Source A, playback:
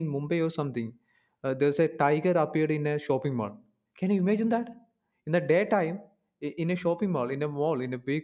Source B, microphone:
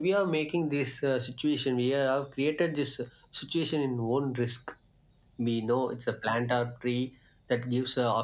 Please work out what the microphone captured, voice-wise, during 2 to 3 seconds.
user only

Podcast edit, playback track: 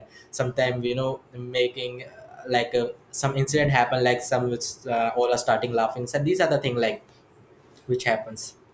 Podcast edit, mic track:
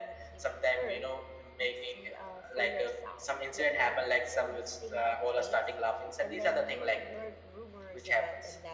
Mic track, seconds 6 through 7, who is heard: both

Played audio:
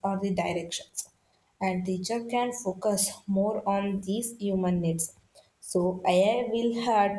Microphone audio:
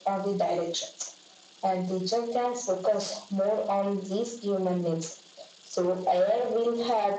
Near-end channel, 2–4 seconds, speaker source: echo only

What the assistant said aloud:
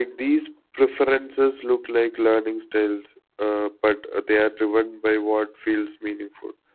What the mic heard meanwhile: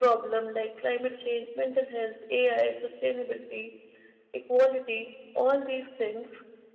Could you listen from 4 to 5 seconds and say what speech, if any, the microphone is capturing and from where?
user only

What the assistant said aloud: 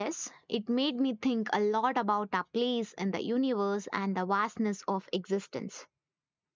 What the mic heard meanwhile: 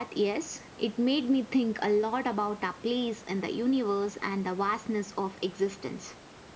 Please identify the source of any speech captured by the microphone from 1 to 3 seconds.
echo only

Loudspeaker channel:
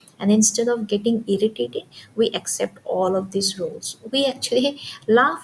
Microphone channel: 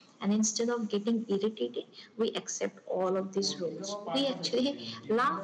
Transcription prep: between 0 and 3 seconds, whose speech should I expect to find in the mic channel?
echo only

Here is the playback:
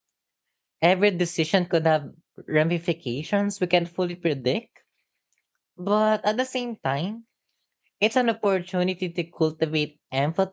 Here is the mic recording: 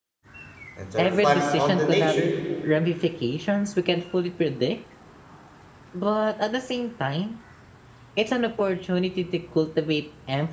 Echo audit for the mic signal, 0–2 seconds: both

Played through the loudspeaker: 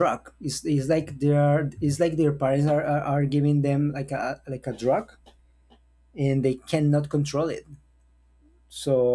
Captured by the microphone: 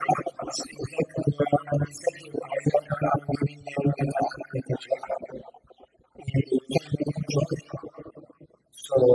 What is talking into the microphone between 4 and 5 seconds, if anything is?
echo only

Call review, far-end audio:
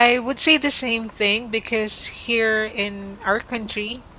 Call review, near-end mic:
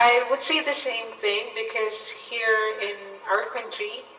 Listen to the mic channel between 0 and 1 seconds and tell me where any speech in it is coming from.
echo only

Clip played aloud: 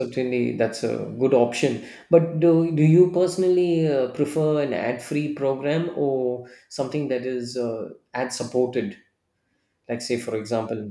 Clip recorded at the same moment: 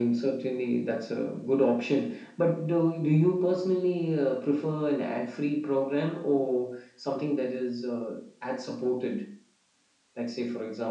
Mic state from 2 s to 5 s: echo only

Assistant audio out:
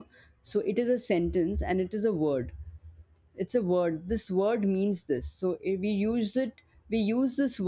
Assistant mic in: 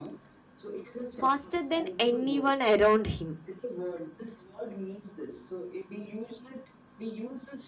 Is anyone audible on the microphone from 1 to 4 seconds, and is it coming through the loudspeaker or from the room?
both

